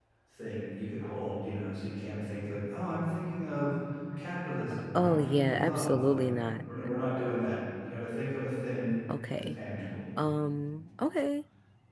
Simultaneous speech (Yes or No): Yes